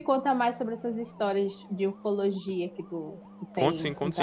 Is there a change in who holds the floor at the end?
Yes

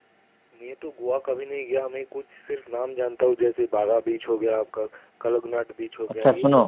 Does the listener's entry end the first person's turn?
Yes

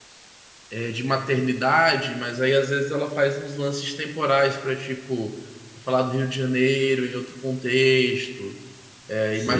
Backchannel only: No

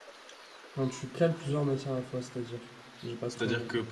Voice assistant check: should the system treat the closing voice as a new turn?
Yes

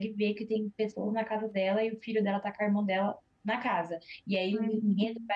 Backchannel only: Yes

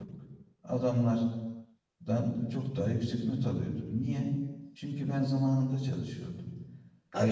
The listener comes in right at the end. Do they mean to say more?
Yes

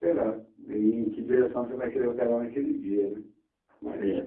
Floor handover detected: Yes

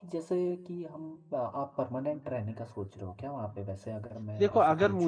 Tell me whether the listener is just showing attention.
No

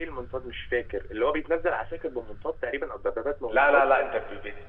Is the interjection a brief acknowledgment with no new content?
No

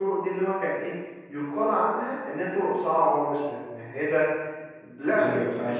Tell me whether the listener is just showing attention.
Yes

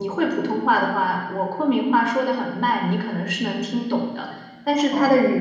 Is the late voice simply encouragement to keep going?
Yes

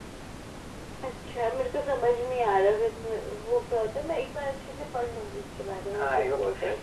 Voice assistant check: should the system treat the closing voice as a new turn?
Yes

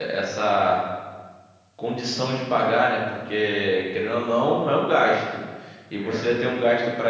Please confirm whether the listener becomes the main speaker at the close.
No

